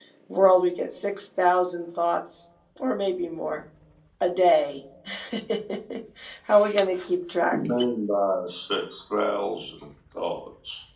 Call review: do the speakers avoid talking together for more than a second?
Yes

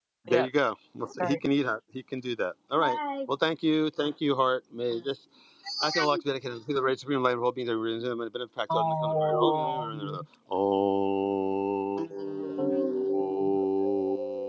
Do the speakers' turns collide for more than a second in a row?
Yes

